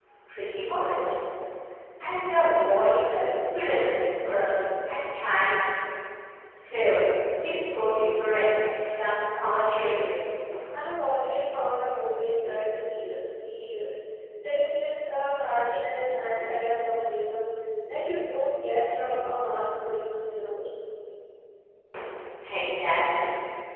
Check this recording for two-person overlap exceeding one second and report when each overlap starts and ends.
none

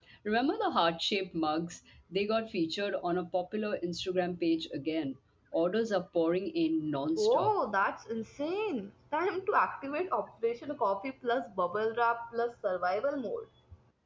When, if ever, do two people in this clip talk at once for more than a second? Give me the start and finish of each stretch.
none

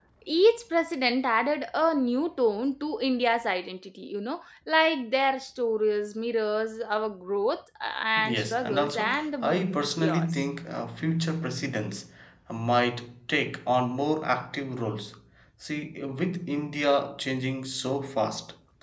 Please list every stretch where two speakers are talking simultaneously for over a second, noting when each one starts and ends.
8.2-10.3

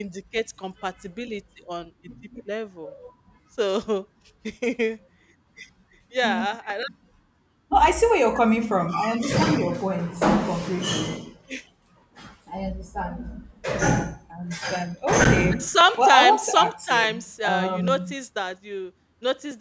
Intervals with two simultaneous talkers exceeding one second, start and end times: 15.6-18.1

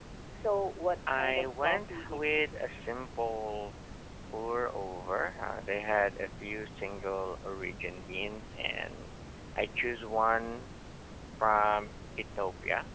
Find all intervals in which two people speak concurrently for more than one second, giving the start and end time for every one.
1.1-2.7

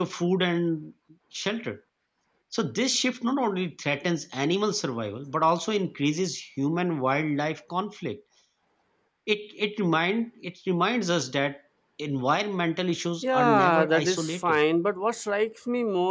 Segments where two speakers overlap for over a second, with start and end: 13.2-14.6

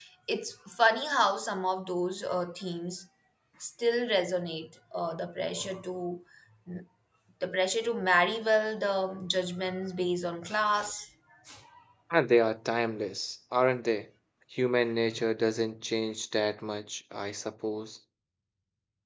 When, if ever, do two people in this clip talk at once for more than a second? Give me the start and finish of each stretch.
none

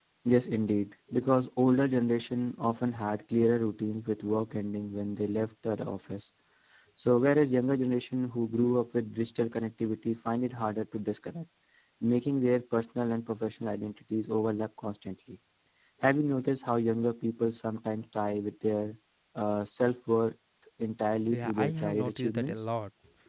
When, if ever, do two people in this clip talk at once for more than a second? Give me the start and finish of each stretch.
21.3-22.6

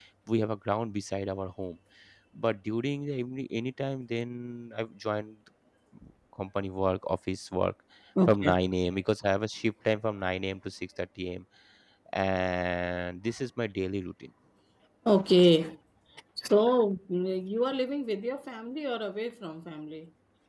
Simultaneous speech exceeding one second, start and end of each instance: none

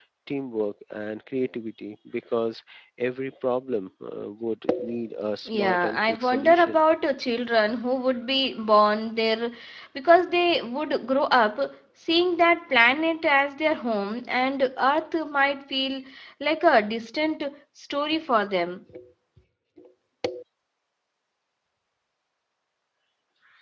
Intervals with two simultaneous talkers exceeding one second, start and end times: 5.6-6.8

